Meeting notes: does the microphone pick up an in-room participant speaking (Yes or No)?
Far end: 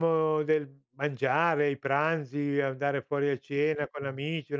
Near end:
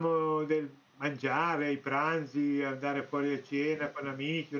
No